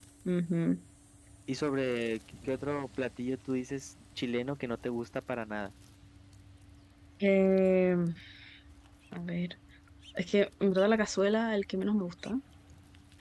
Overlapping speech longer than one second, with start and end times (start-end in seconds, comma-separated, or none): none